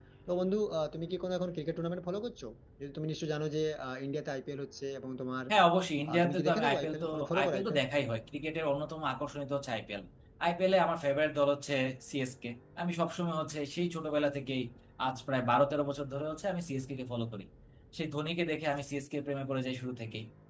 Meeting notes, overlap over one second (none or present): present